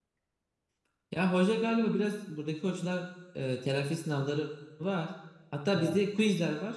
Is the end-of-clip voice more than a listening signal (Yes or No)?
No